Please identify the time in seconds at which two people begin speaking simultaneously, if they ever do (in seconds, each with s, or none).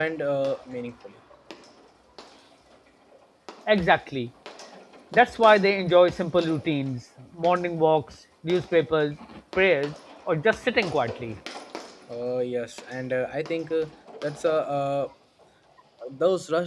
none